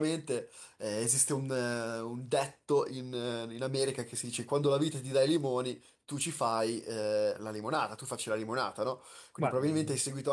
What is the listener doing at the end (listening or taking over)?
listening